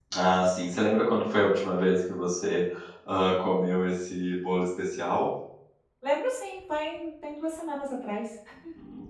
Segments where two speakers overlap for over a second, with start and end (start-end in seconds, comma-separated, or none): none